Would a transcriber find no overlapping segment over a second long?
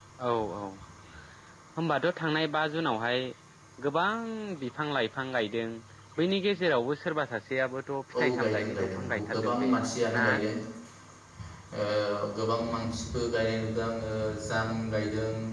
No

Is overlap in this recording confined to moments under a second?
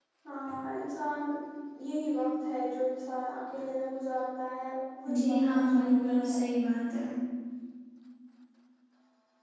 No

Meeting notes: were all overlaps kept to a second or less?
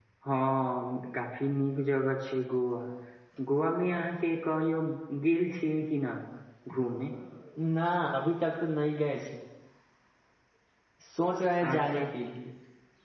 Yes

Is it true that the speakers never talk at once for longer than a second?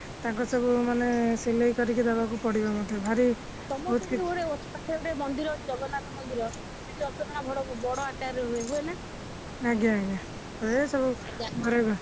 Yes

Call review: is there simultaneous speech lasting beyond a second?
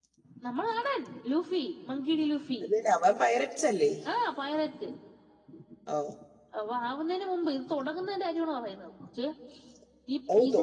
No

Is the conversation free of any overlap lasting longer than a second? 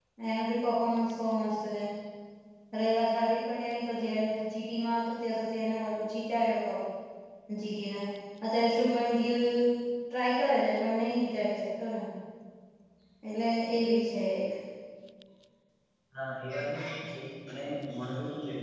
Yes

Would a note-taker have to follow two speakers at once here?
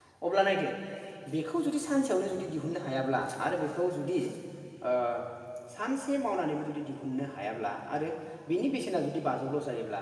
No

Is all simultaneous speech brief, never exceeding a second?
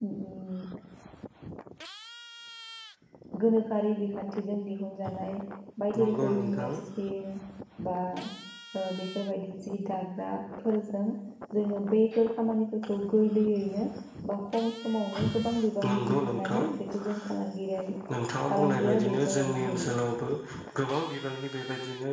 No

